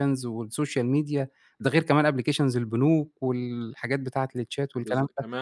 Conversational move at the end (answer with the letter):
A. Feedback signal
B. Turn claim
B